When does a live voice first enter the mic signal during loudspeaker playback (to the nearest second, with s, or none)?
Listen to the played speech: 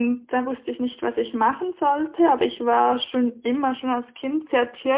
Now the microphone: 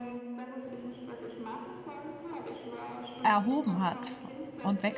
3 s